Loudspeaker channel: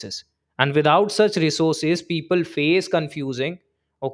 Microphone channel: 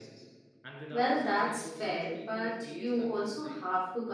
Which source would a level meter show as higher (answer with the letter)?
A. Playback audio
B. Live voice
B